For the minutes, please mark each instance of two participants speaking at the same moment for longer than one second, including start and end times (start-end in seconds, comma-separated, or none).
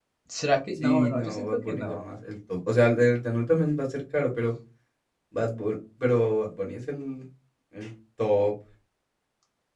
0.8-2.0